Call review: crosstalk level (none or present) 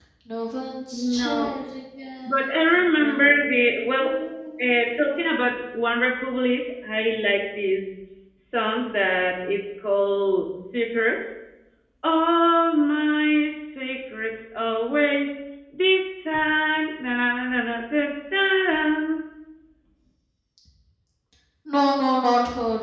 present